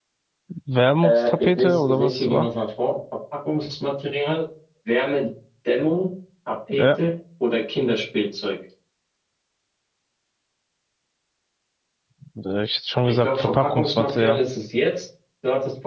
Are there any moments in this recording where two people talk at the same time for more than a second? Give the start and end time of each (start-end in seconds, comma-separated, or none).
1.0-2.5, 13.1-14.4